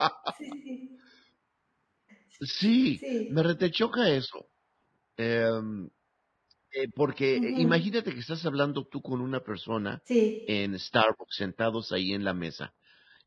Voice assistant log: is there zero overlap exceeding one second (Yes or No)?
Yes